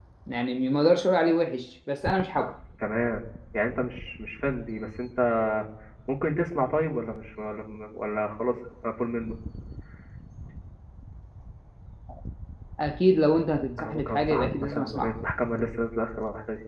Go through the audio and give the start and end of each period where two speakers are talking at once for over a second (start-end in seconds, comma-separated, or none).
13.8-15.1